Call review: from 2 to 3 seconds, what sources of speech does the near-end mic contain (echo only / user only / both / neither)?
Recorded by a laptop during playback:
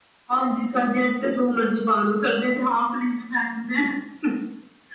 echo only